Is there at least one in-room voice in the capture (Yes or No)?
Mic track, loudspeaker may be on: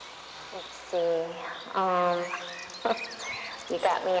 No